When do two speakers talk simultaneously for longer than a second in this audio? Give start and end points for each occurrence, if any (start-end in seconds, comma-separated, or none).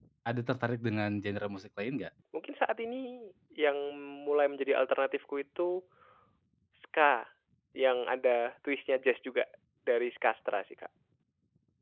none